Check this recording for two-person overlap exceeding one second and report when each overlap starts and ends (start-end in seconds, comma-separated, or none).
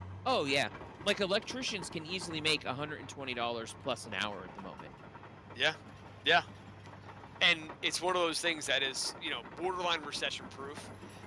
none